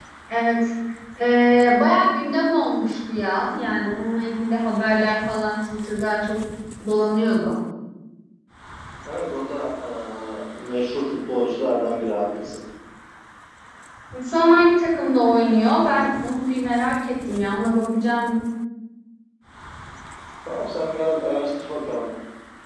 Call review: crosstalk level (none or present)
none